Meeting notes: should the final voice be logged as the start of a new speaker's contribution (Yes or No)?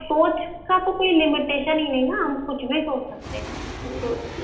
No